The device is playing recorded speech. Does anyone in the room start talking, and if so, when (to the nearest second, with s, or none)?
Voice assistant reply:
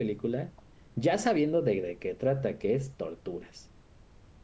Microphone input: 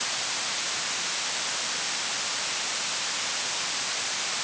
none